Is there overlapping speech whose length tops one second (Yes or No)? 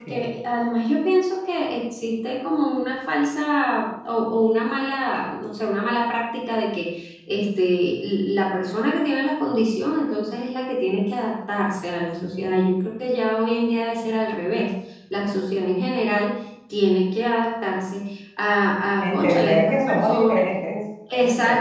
Yes